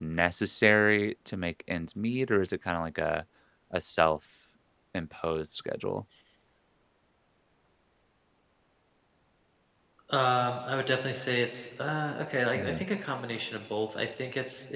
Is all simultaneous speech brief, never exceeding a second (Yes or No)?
Yes